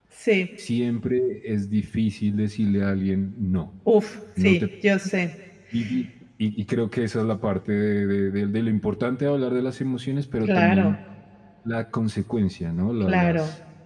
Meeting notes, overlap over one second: none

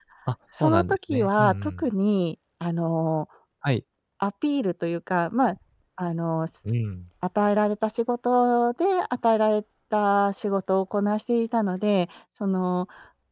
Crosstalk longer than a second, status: present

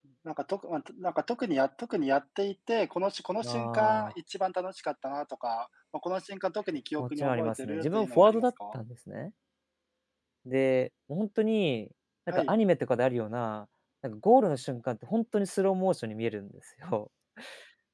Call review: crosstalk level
present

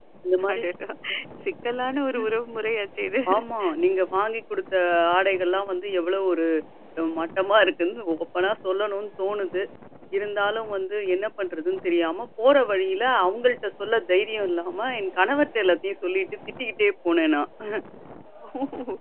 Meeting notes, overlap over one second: none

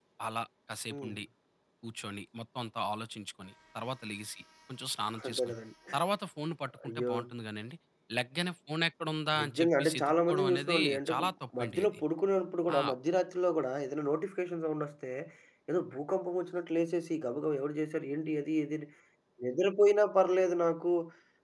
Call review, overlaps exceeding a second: present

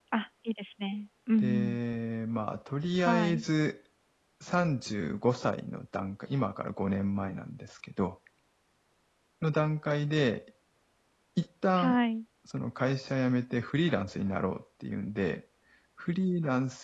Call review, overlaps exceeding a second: none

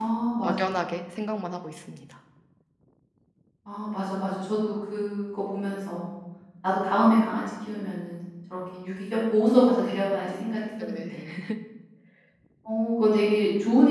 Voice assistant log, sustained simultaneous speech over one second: none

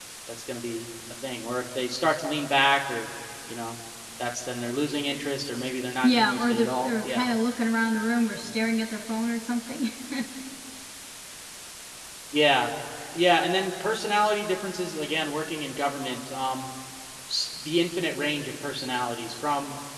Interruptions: present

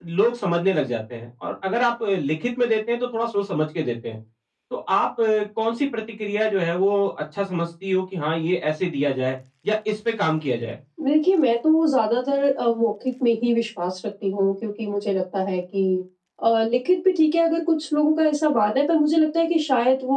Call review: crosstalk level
none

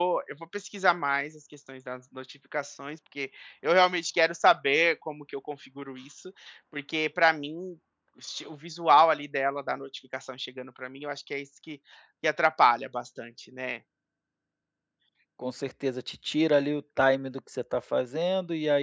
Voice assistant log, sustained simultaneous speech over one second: none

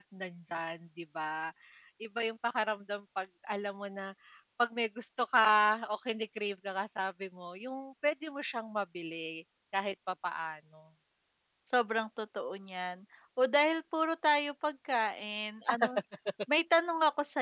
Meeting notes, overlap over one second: none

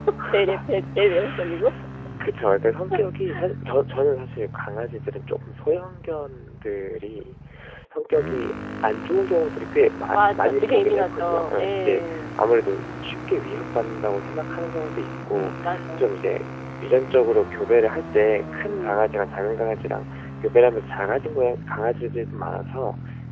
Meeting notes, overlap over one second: present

